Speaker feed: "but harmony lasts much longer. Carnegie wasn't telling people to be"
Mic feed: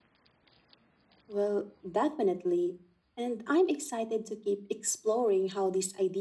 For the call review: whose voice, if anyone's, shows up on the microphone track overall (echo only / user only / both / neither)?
user only